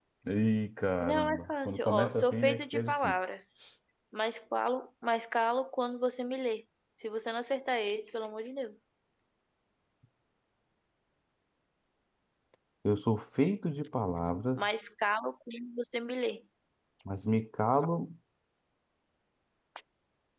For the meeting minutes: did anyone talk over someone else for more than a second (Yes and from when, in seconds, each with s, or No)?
Yes, from 1.0 s